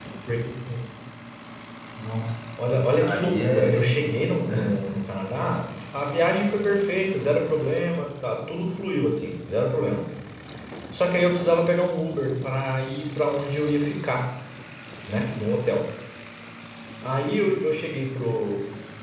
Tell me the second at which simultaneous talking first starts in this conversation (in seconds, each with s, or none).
2.6 s